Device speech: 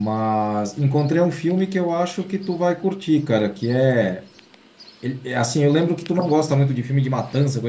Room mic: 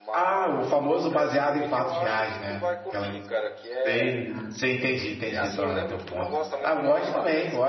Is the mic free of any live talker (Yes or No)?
No